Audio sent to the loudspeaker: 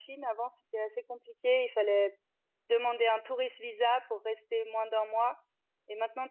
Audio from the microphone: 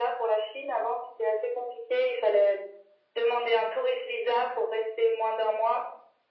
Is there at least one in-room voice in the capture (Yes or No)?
No